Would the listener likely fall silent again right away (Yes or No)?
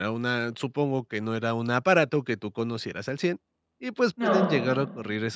Yes